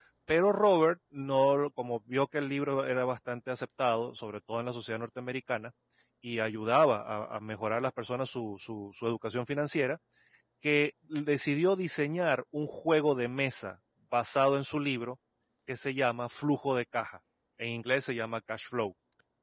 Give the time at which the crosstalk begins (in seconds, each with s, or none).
none